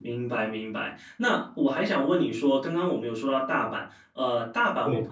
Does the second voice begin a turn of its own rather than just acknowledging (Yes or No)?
No